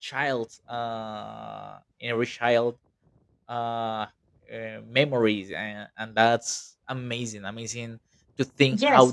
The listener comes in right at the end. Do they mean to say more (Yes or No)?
Yes